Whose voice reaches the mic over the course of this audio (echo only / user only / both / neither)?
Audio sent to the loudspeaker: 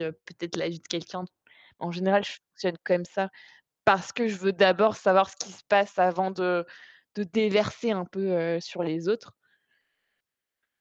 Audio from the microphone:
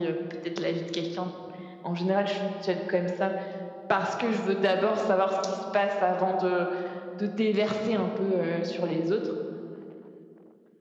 echo only